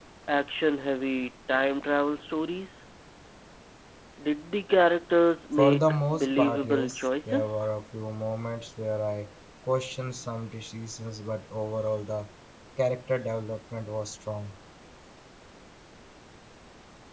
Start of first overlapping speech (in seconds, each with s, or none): 5.5 s